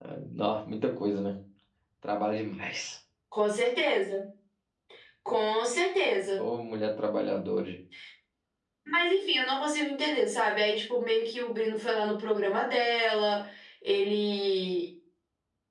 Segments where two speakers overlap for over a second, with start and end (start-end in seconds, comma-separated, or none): none